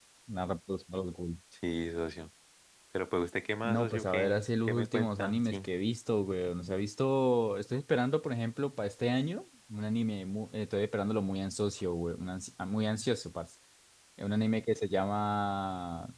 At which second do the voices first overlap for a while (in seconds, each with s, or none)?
3.6 s